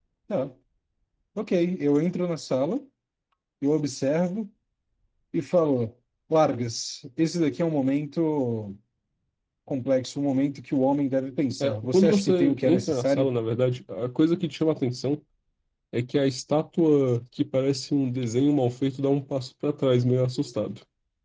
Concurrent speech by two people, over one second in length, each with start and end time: 11.6-13.3

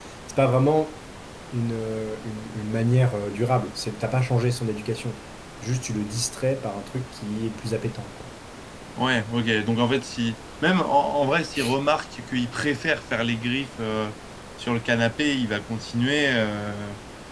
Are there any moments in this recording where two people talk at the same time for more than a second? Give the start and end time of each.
none

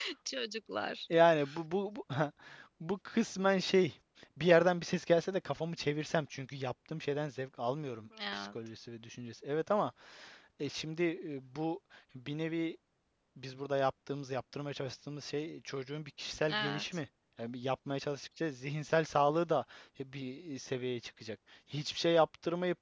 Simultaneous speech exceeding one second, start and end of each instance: none

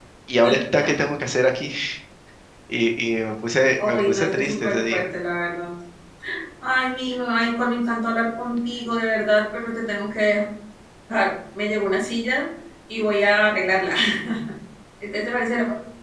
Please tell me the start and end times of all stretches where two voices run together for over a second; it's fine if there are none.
3.8-5.1

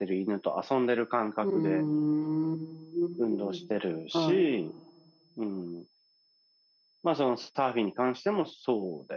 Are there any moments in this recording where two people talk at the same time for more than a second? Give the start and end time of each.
none

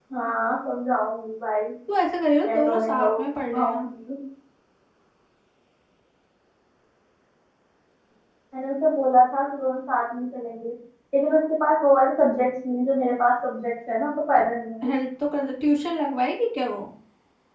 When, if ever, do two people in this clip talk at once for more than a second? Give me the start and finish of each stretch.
2.5-3.9

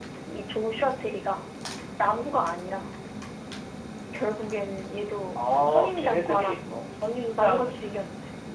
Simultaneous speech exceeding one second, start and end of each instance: 5.3-6.6

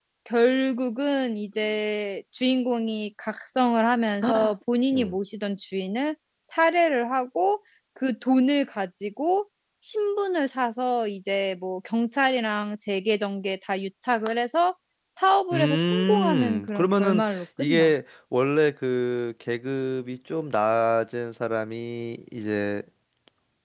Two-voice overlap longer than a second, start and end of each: 15.5-17.9

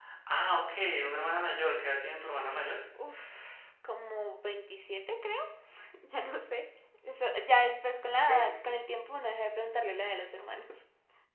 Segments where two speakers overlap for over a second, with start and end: none

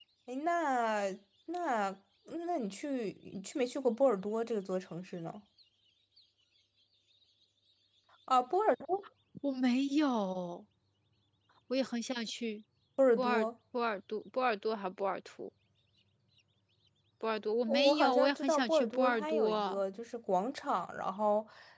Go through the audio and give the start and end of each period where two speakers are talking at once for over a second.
17.7-19.8

